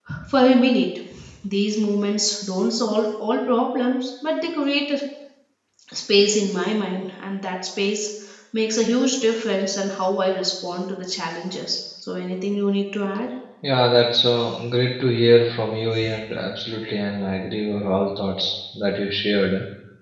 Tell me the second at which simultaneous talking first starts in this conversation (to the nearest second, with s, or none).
none